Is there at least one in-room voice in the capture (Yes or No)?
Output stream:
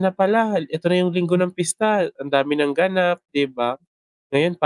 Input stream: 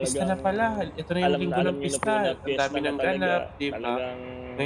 Yes